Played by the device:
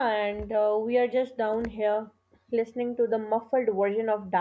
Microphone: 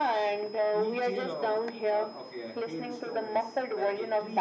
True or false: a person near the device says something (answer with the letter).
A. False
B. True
B